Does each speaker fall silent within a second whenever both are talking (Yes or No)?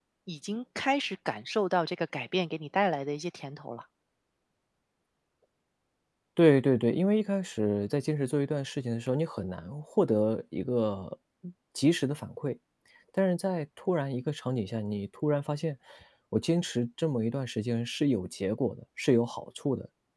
Yes